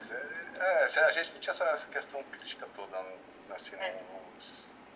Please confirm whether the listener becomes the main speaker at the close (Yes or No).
No